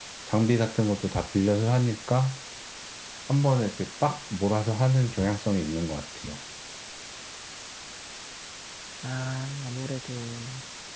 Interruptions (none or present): none